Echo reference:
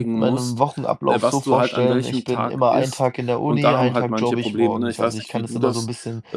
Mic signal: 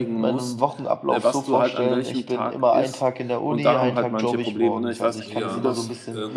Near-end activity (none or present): present